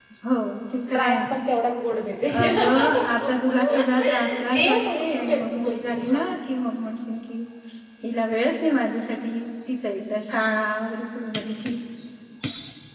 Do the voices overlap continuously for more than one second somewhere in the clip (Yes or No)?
Yes